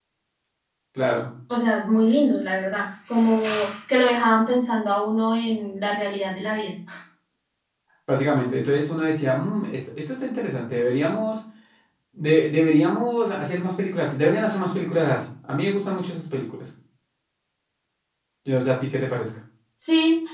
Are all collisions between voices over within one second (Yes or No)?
Yes